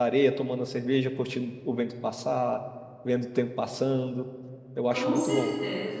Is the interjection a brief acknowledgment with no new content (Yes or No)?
No